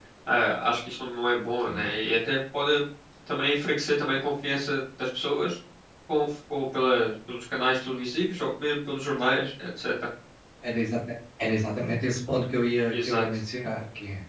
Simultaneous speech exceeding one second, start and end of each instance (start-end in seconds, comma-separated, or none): none